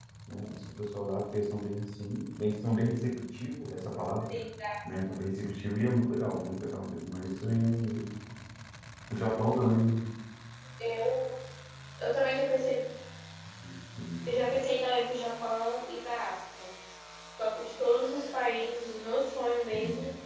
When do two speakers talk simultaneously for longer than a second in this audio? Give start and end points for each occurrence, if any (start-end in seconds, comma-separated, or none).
none